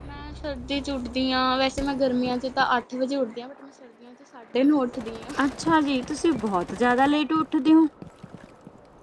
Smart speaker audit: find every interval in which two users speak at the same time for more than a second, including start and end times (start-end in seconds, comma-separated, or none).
none